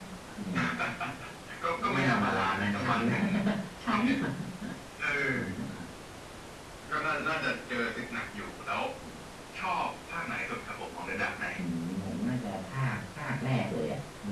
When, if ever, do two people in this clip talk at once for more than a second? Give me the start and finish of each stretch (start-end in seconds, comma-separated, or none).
1.9-3.1